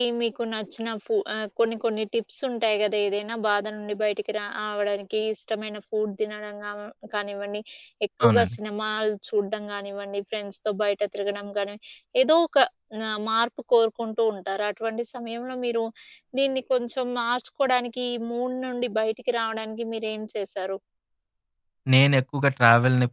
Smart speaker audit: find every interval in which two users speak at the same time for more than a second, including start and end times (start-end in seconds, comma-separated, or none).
none